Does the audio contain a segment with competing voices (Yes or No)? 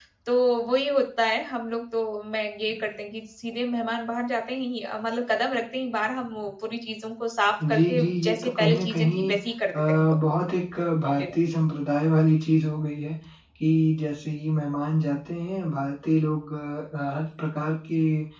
Yes